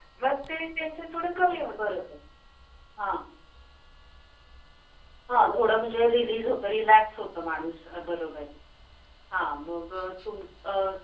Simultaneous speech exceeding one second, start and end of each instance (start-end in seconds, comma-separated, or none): none